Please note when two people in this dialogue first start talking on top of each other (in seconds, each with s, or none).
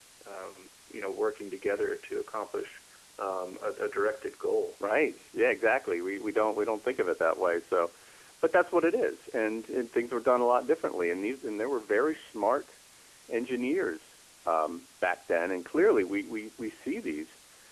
none